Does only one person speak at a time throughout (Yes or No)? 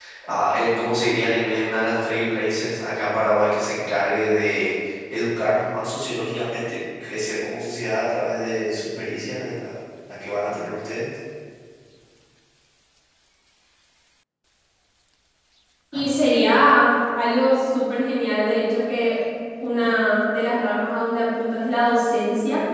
Yes